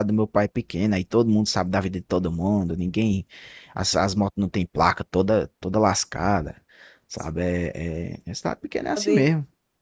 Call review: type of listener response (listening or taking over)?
taking over